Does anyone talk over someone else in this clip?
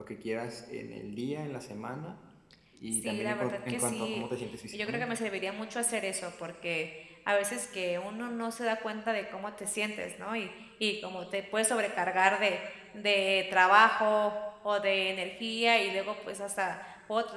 Yes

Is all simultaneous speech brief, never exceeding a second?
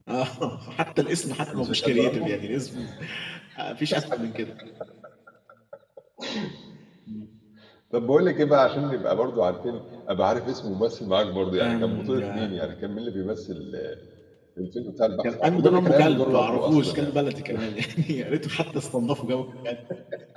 No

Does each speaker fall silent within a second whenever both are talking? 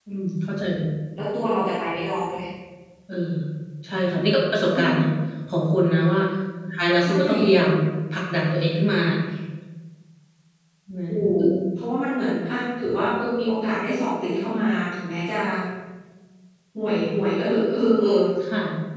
Yes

